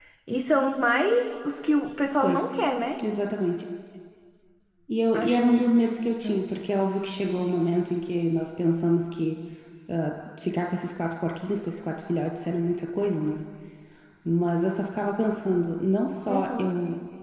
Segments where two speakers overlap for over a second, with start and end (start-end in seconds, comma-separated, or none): 5.1-6.3